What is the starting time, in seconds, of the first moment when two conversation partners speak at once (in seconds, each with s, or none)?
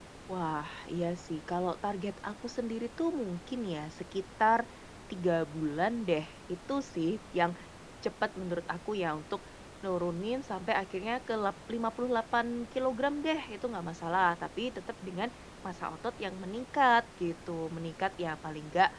none